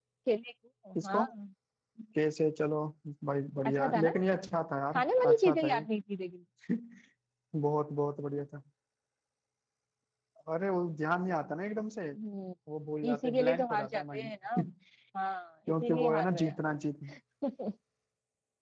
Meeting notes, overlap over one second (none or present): present